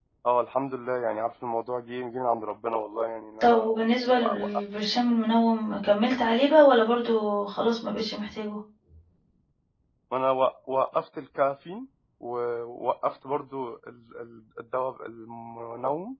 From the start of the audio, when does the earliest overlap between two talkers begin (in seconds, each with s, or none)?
3.4 s